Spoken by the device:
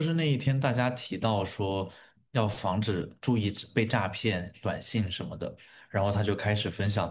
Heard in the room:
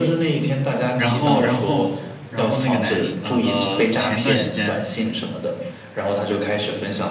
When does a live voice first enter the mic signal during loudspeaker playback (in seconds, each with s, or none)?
1.0 s